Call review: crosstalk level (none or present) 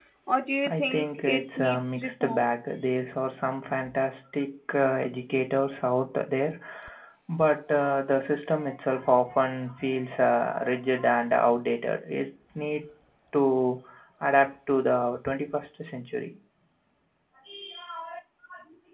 present